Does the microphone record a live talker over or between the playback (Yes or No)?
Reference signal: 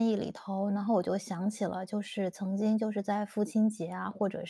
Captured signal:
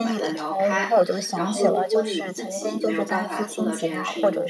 Yes